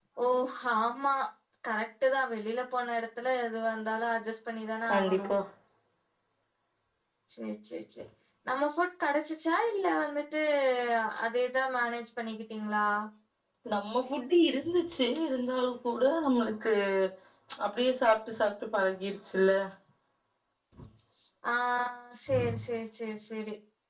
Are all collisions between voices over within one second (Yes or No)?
Yes